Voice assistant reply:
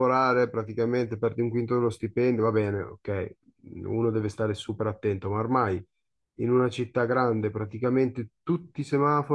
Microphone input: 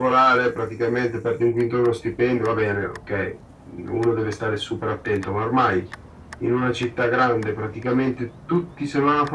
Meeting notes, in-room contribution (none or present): none